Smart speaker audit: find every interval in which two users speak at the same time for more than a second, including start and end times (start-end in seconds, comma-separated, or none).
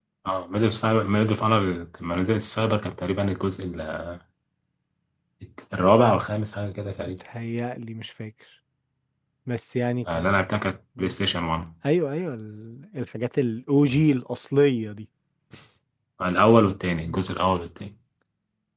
none